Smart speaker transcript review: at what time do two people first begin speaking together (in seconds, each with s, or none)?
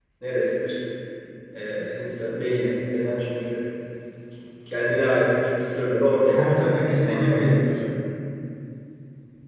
6.4 s